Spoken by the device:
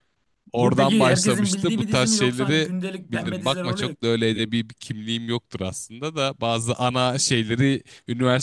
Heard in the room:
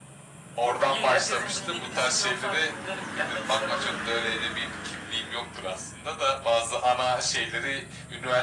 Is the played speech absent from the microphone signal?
No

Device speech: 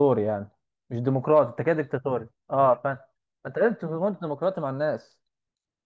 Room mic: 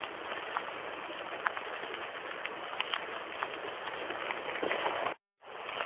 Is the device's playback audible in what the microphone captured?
No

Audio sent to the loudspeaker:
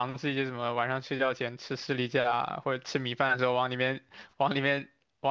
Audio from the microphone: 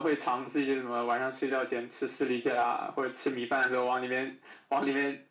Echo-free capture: No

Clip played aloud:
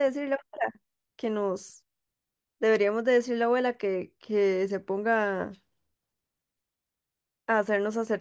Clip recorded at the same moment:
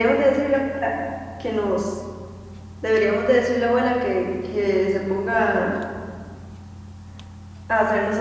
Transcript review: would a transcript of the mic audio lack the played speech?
No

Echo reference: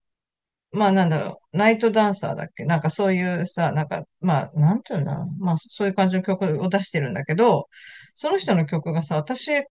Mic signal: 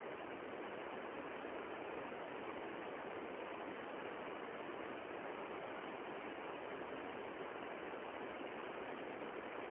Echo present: No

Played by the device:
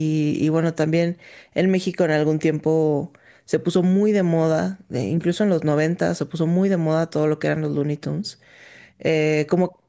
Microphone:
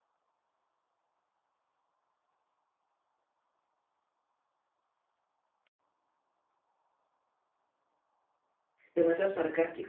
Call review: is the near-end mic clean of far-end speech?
Yes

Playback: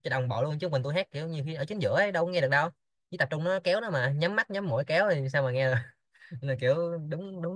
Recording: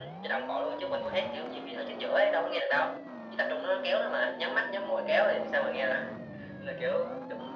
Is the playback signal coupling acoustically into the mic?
Yes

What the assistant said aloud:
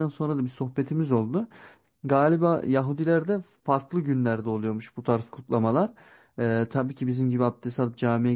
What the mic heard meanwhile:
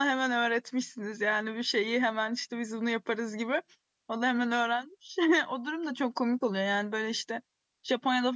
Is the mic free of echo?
Yes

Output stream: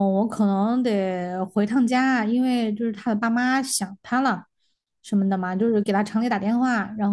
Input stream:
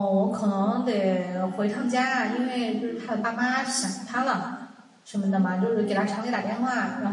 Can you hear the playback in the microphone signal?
Yes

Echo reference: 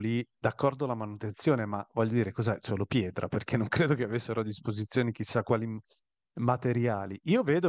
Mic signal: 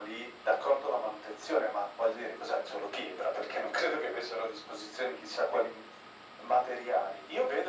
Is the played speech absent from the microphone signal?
No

